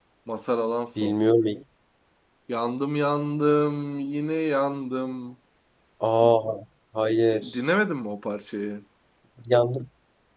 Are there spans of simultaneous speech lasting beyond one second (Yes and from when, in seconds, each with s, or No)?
No